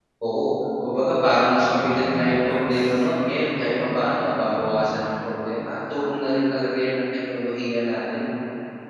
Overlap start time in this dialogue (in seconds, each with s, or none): 1.5 s